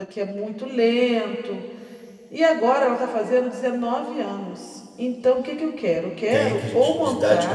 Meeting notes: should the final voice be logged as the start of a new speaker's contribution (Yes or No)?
Yes